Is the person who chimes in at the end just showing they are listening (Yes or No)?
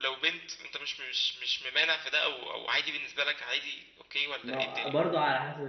No